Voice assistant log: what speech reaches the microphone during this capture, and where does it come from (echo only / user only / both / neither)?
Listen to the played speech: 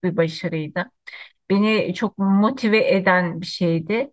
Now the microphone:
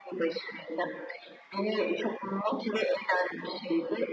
echo only